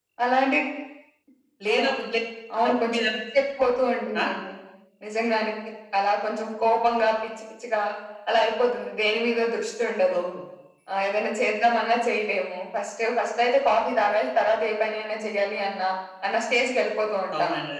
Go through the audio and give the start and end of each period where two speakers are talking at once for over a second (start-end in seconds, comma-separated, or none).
none